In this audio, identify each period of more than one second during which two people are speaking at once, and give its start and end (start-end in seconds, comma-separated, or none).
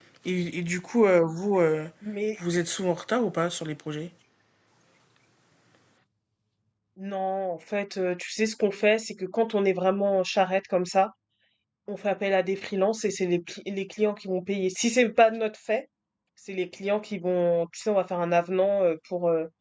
none